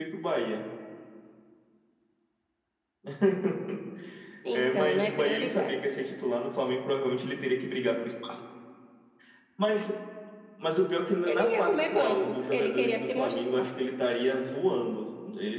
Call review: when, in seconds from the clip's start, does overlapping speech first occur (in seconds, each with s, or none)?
4.5 s